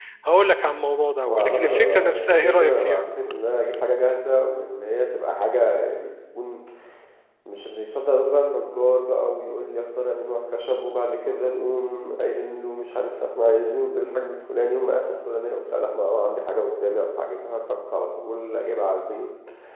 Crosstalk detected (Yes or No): Yes